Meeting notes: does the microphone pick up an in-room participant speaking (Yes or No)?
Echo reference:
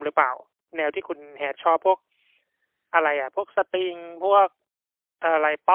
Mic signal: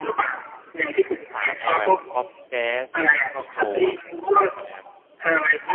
Yes